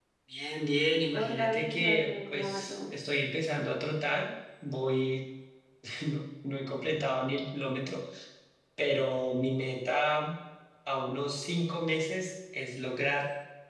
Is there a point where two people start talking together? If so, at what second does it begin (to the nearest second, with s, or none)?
1 s